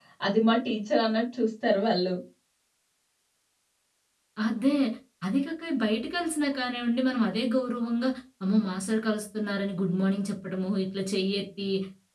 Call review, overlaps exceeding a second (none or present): none